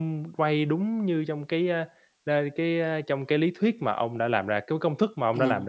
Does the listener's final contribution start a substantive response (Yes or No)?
Yes